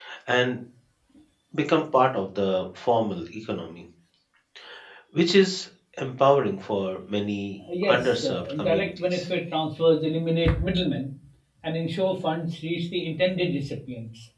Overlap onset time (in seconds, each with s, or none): 7.6 s